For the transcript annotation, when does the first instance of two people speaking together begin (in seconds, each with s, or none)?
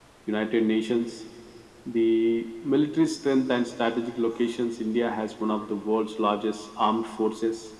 none